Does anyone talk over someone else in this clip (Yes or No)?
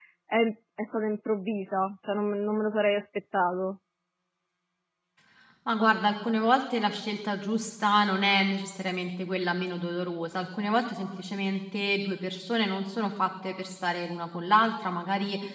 No